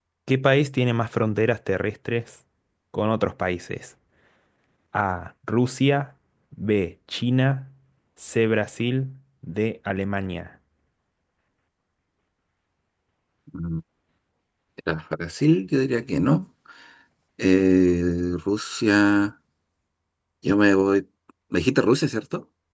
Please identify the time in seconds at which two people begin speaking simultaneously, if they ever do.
none

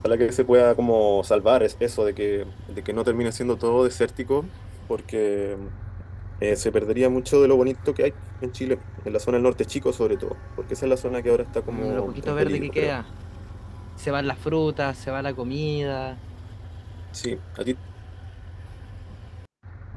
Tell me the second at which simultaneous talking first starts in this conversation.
11.7 s

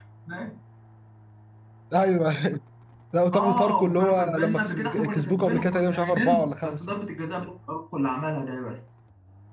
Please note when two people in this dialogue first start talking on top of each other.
3.3 s

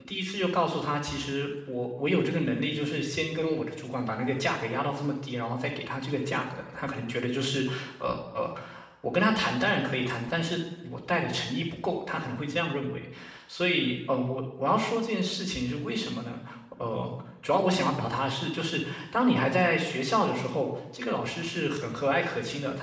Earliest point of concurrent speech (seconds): none

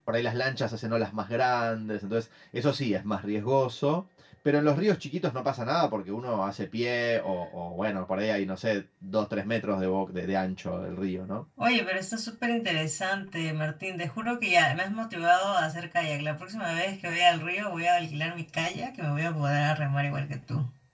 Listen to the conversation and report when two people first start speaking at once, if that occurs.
none

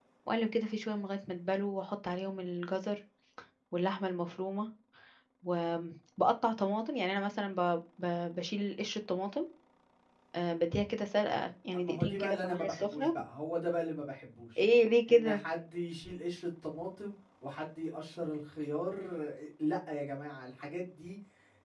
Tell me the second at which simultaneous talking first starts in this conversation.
11.7 s

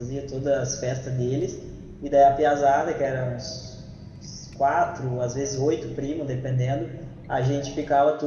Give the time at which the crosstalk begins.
none

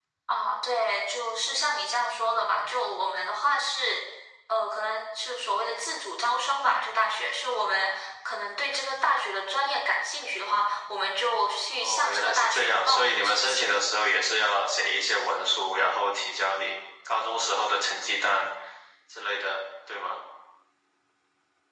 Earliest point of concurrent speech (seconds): 11.8 s

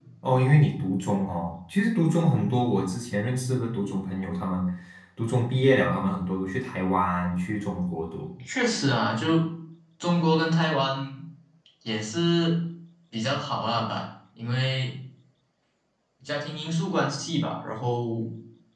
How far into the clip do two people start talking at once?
none

